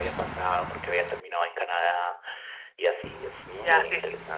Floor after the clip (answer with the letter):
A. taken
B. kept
A